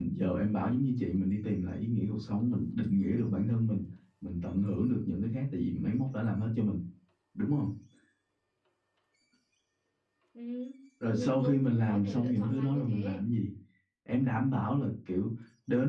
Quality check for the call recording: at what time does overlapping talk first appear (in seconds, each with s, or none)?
11.1 s